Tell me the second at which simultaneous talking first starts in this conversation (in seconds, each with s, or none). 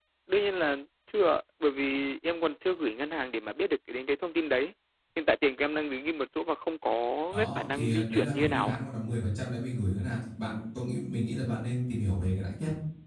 7.3 s